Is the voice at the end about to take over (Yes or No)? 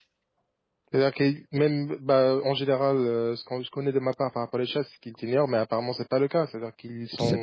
Yes